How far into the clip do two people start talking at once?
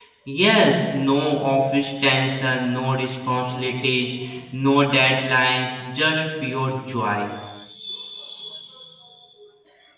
none

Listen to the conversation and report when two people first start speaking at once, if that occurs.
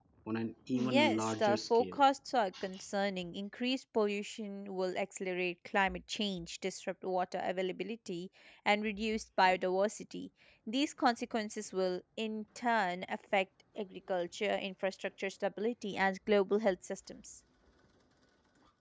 0.8 s

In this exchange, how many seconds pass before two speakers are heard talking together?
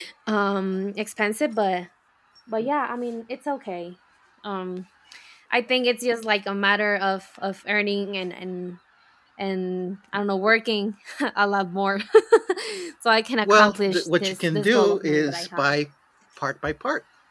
13.4 s

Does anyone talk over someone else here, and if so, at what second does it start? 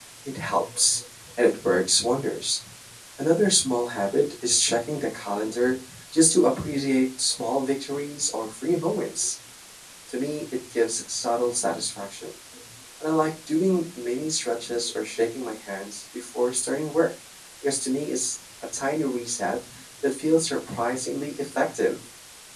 none

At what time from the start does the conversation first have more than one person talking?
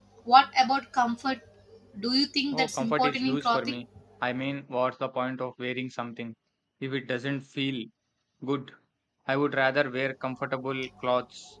2.5 s

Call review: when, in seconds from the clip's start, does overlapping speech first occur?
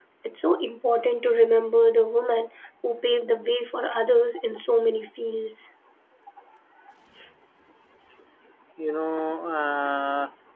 none

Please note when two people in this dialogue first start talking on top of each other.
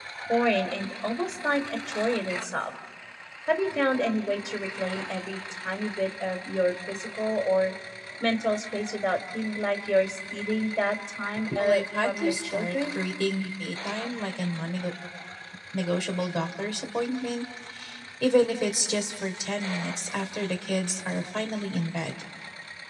11.4 s

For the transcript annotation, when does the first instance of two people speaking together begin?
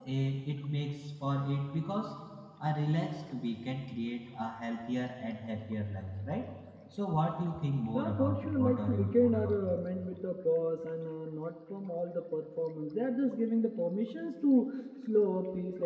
7.9 s

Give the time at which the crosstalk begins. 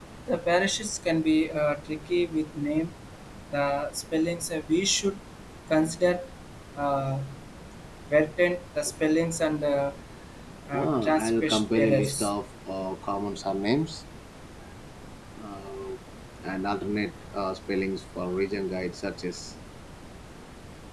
10.7 s

